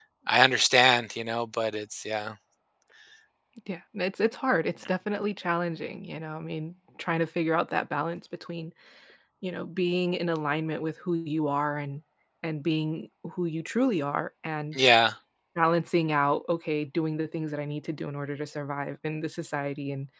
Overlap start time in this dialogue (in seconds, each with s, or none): none